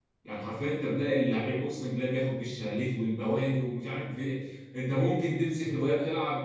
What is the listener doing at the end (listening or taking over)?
listening